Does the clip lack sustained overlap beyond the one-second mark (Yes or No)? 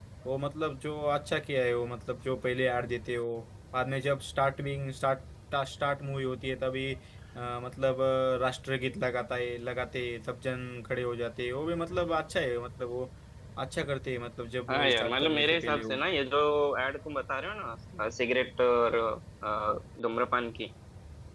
No